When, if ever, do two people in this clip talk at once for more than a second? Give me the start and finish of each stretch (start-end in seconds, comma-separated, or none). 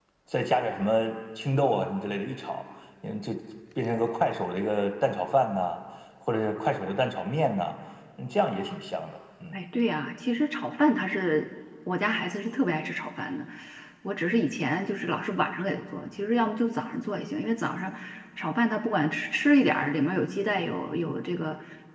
none